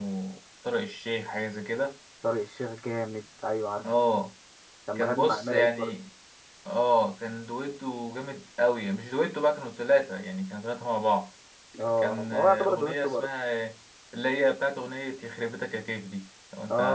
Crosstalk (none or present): present